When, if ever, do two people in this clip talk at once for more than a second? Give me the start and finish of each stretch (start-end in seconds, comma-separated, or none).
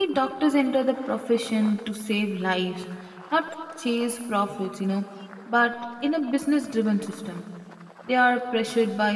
none